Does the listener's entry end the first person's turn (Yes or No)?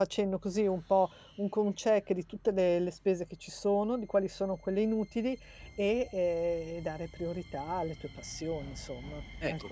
Yes